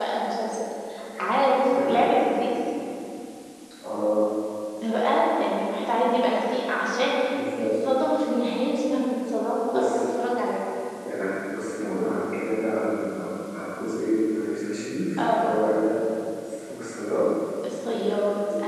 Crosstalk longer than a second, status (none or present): none